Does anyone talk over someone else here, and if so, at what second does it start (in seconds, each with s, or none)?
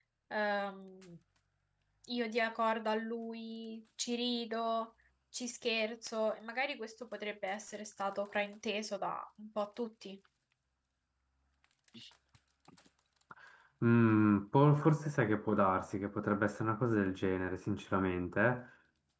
none